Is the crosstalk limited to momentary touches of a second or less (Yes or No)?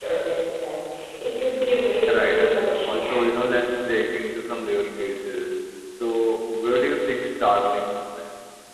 No